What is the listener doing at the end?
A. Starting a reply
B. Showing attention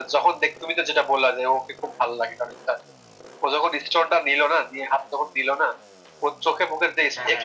B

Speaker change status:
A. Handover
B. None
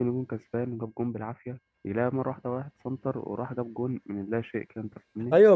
A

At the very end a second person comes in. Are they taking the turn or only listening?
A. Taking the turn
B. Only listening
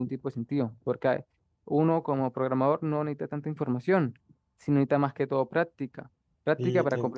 A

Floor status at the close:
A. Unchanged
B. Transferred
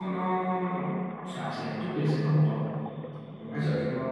A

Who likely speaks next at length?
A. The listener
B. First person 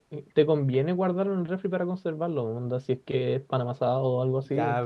A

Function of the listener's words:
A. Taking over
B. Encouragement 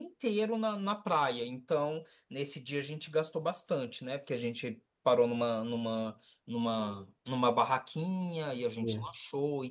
B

